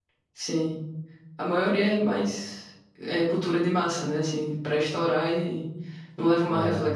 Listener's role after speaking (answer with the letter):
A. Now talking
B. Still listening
B